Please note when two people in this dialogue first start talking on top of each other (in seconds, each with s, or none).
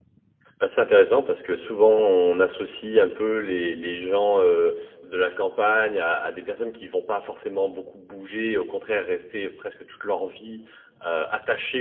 none